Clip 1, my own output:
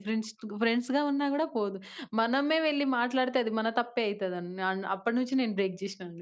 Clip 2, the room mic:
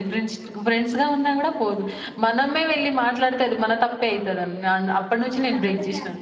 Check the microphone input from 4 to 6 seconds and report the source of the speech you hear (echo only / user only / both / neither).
both